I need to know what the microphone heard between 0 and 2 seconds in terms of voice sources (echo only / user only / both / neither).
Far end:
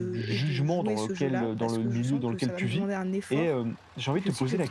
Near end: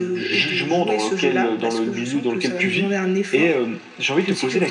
echo only